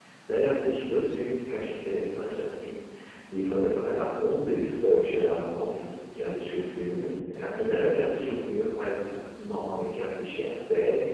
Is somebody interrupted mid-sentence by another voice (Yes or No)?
No